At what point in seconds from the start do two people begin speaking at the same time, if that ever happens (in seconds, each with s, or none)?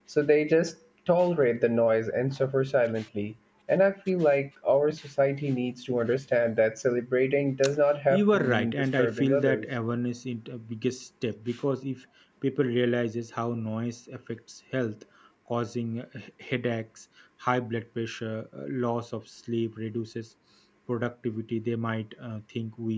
8.1 s